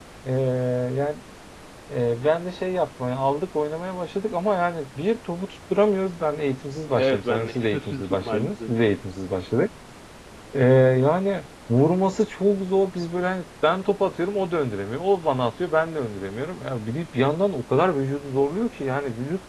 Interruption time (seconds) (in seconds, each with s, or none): 7.0 s